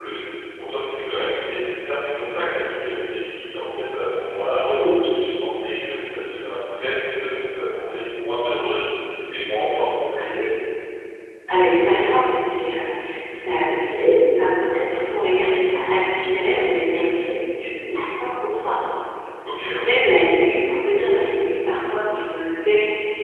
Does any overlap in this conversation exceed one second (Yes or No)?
No